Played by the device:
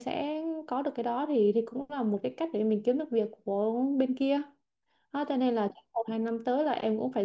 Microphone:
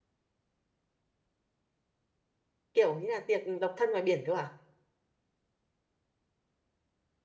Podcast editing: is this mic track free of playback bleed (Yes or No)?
Yes